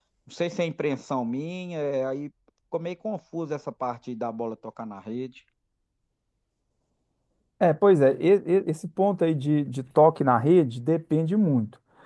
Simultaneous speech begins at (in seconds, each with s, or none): none